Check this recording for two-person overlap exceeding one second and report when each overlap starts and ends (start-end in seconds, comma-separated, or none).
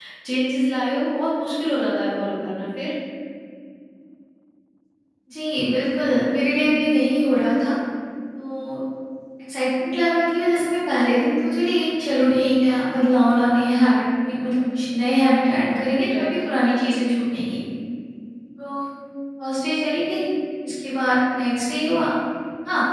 none